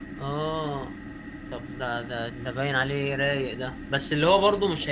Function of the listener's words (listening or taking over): listening